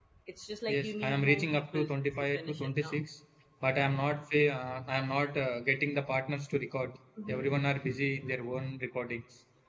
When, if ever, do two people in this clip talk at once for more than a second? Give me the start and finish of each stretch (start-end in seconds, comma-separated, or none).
0.7-3.0